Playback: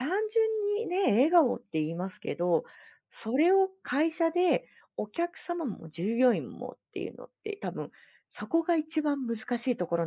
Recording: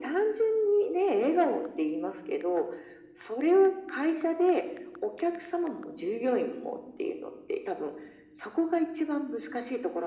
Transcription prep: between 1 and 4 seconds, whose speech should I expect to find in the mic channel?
echo only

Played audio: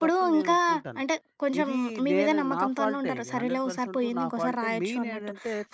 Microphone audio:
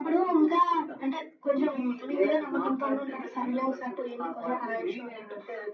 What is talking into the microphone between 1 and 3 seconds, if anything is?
echo only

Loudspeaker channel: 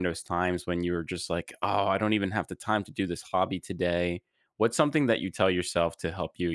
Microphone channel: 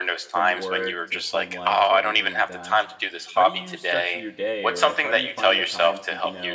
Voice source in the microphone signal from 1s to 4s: both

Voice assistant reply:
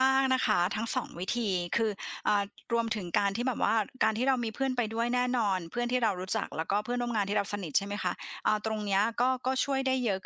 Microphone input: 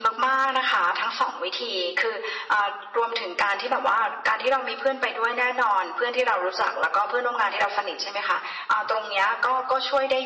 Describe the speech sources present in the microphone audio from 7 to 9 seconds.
echo only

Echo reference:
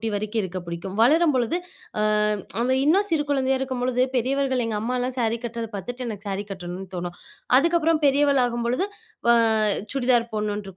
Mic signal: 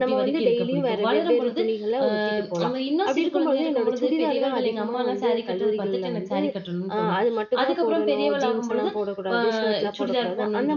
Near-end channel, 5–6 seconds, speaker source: both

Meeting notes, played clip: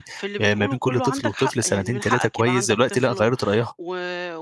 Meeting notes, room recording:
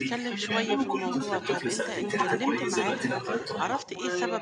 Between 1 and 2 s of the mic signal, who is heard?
both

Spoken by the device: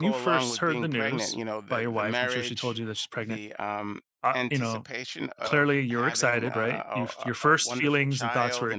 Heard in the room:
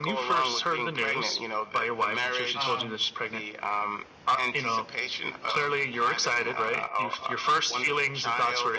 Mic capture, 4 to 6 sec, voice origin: echo only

